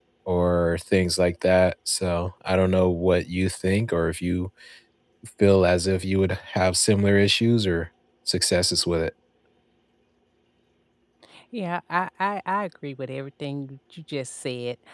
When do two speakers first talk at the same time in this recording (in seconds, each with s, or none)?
none